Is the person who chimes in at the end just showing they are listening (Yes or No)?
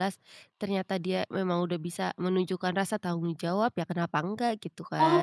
No